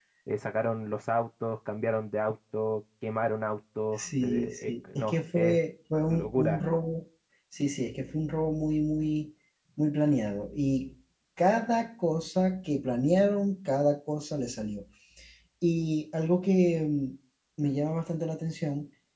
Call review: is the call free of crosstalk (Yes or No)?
No